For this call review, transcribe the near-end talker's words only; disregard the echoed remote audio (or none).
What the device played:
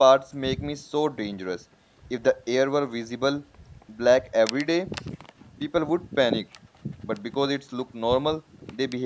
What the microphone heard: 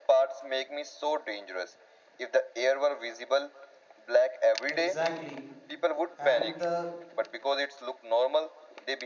exactly and the